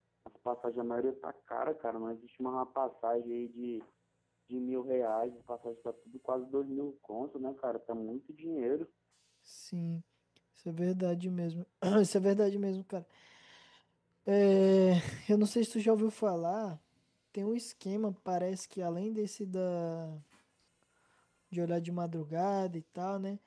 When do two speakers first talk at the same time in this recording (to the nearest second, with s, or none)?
none